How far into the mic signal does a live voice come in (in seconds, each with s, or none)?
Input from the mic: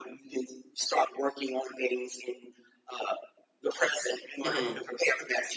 4.5 s